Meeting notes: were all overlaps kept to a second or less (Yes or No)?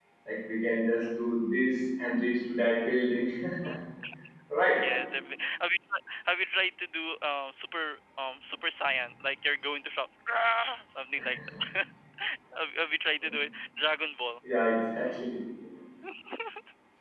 Yes